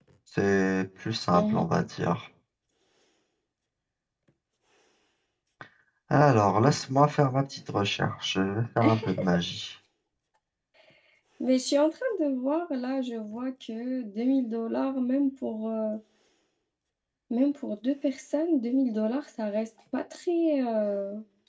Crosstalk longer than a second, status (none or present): none